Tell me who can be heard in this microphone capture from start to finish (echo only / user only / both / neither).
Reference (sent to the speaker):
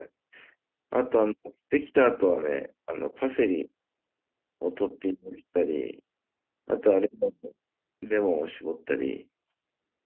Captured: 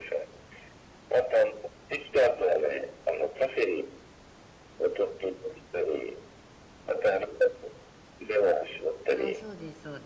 both